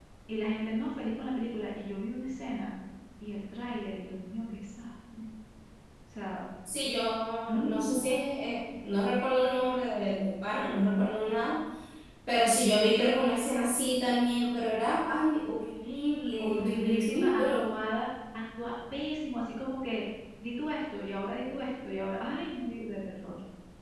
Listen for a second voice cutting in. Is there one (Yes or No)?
Yes